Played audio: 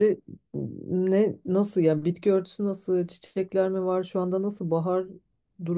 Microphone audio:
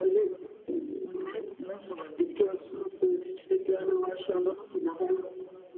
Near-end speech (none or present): none